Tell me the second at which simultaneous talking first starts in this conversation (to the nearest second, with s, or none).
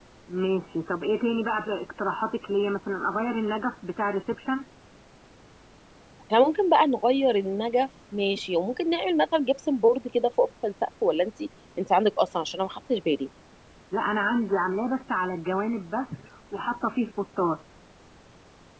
none